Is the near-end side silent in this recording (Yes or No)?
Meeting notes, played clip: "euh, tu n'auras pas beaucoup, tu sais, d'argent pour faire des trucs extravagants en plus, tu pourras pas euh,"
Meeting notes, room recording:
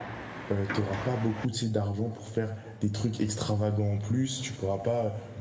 Yes